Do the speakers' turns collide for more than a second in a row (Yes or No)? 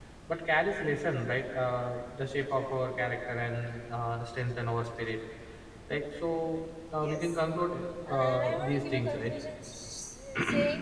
Yes